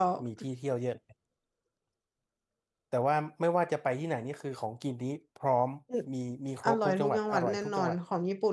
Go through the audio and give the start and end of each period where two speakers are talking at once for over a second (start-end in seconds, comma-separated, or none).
6.6-8.0